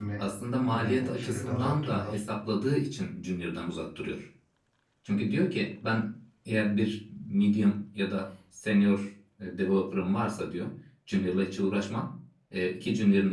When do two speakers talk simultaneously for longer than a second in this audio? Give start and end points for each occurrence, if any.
0.7-2.1

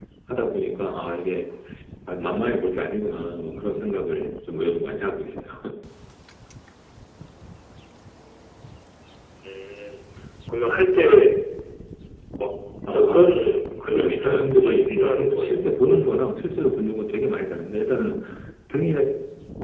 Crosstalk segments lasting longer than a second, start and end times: 13.9-16.3

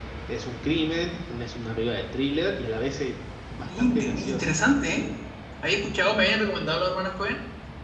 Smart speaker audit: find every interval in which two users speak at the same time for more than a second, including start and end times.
3.6-5.1

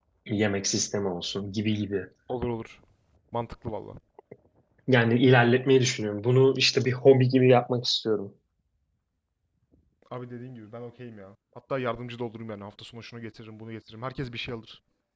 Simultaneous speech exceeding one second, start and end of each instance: none

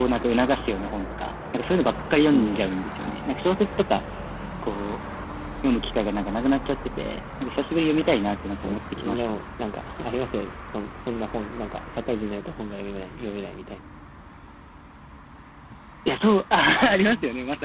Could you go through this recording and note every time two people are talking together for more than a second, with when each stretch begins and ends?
8.0-9.4

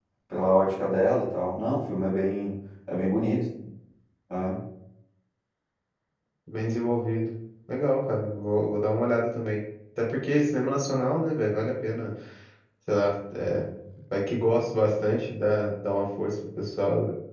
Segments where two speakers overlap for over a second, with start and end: none

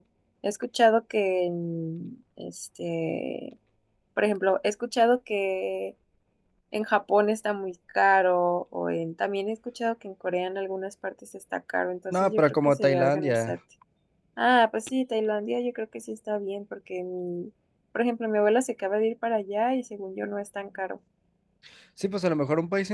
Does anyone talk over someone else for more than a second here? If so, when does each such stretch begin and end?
12.1-13.6

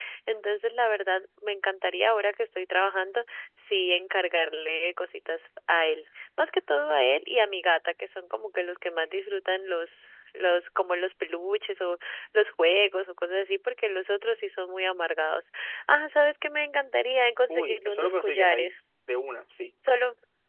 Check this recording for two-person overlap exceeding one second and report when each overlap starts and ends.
17.5-18.8

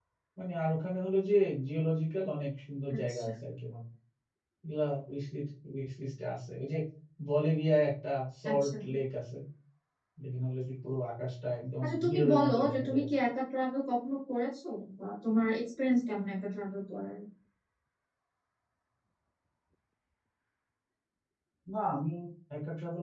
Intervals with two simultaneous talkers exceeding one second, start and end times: 11.8-13.2

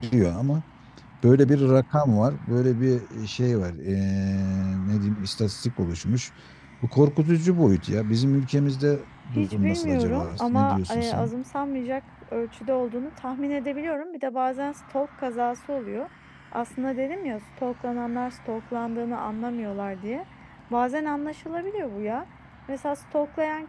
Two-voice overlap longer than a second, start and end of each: 9.4-11.3

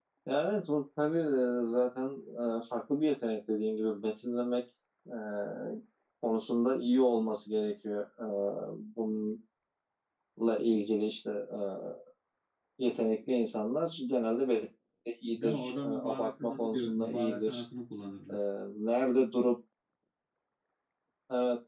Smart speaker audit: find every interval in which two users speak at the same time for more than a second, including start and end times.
15.4-17.6

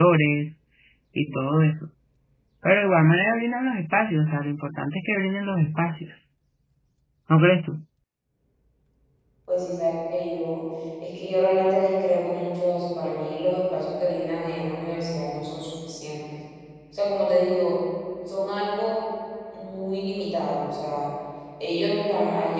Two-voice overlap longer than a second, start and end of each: none

